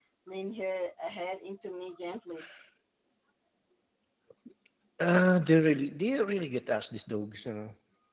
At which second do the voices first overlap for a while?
none

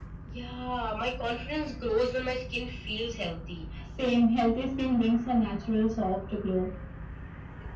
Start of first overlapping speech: none

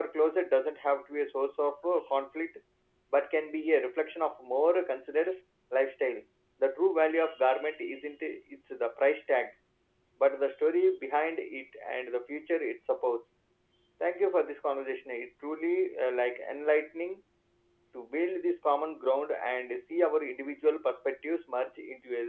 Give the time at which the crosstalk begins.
none

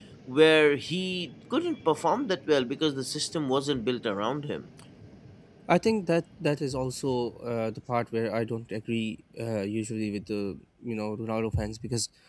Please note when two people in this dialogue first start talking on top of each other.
none

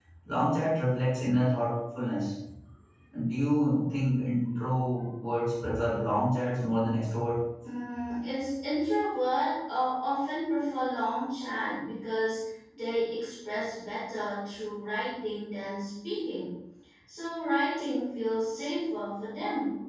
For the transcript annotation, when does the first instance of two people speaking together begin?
none

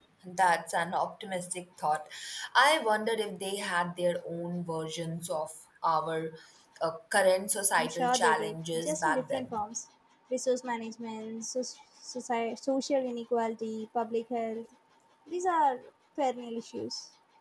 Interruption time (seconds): 8 s

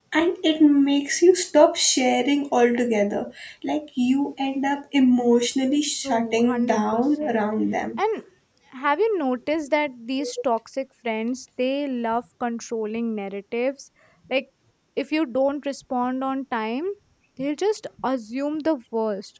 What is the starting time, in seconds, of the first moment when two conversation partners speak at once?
6 s

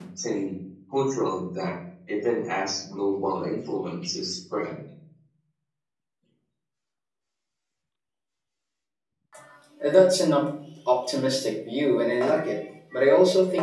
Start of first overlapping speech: none

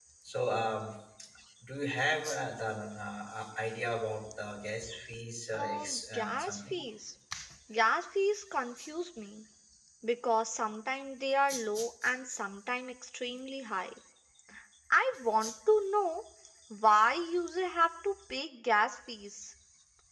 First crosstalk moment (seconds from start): 6 s

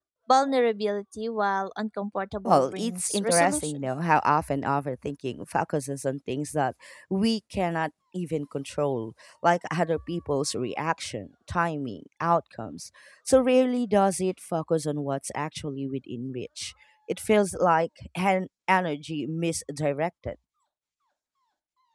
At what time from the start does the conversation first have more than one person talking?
2 s

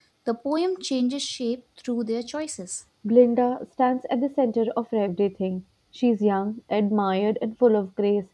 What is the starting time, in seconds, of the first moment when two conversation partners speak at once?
none

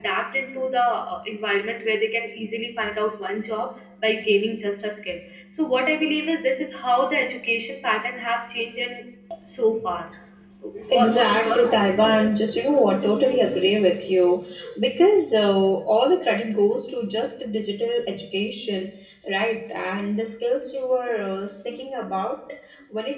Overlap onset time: 11 s

